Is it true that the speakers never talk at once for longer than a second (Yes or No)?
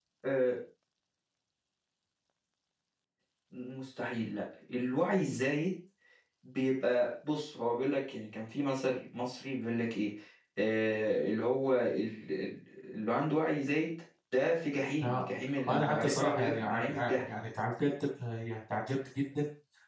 No